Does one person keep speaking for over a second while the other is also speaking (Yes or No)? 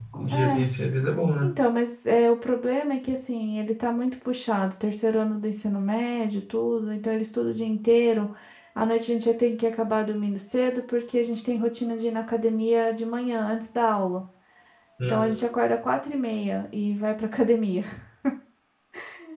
No